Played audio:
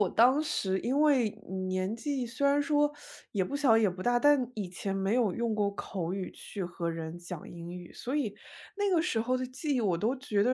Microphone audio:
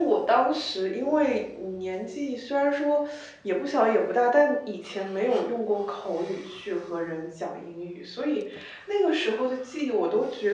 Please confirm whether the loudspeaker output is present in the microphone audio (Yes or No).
Yes